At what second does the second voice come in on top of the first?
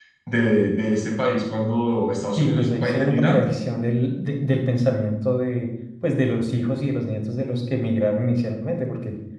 2.4 s

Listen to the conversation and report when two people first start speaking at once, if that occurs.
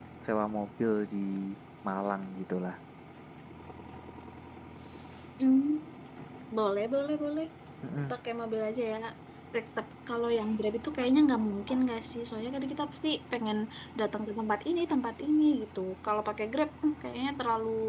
none

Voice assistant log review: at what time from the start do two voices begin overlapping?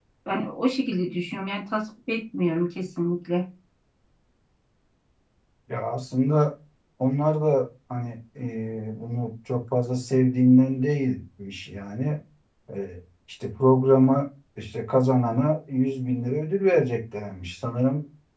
none

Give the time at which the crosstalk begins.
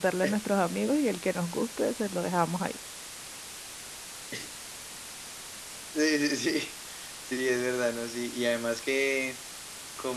none

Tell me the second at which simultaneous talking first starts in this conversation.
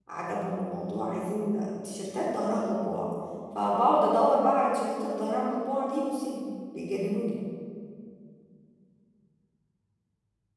none

